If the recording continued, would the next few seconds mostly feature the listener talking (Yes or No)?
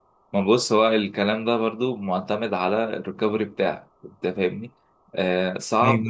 No